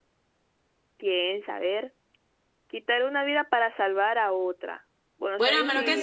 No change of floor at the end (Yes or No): No